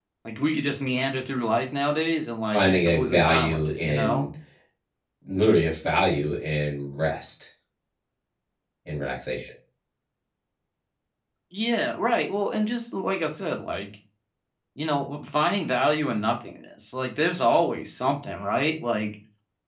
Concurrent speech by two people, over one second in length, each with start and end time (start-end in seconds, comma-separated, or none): 2.5-4.3